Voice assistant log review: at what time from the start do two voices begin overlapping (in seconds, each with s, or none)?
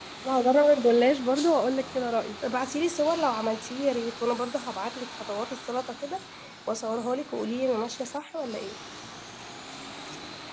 none